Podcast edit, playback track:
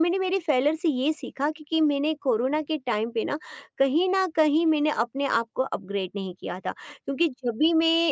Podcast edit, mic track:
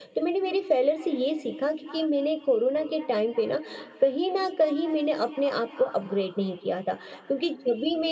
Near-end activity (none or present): none